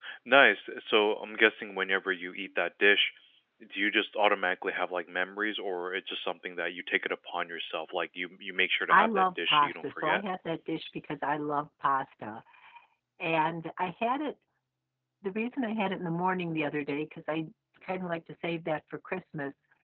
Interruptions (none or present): present